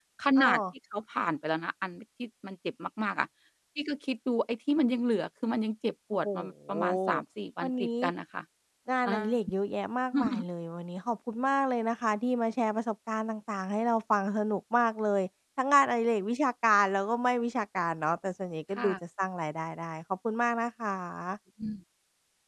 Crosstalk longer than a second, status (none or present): none